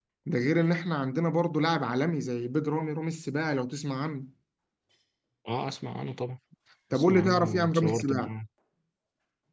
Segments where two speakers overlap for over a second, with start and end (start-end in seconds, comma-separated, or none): 6.9-8.3